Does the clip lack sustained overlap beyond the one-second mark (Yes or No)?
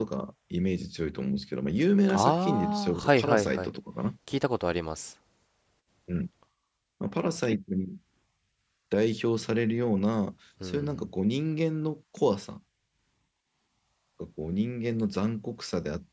No